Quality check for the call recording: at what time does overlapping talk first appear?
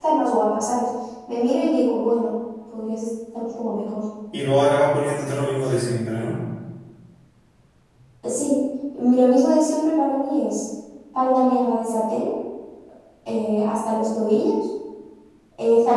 none

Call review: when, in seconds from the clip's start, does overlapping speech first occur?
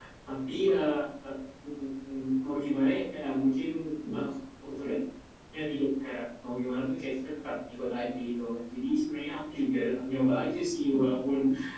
none

